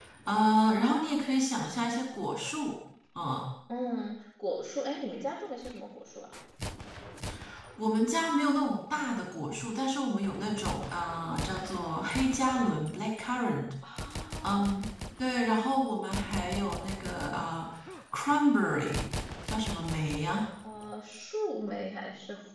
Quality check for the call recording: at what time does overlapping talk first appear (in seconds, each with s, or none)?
none